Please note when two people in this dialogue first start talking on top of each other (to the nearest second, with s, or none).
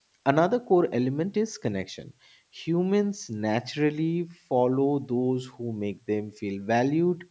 none